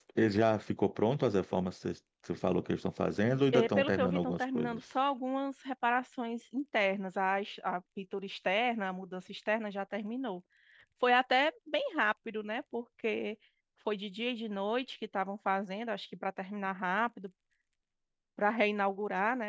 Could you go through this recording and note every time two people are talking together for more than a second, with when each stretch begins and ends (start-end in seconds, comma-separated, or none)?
3.5-4.8